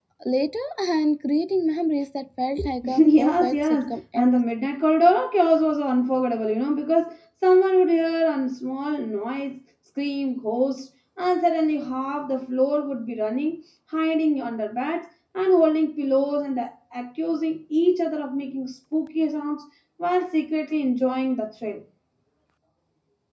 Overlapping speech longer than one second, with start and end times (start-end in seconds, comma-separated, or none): 2.8-4.3